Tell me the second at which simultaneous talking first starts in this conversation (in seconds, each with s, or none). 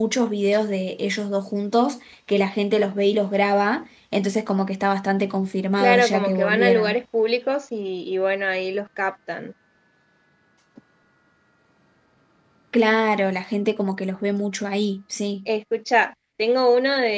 5.8 s